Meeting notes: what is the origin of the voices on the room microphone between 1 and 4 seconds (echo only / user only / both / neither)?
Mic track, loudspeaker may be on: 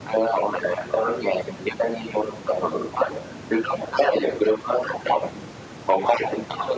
echo only